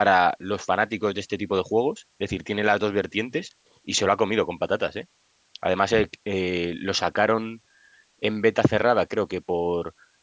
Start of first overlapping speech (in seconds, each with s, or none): none